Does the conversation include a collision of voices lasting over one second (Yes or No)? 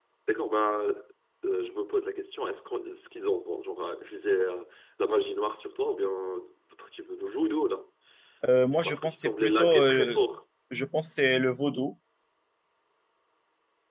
Yes